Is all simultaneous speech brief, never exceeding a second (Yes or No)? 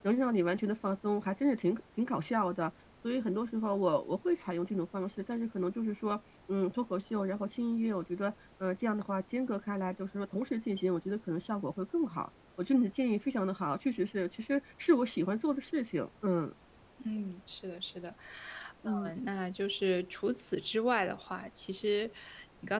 Yes